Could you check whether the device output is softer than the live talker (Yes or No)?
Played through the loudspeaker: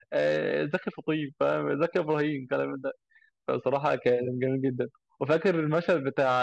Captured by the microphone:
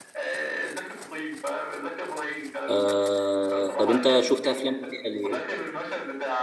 Yes